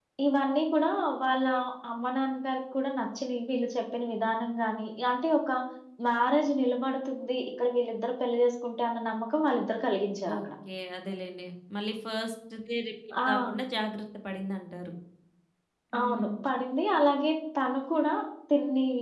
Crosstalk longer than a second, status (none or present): none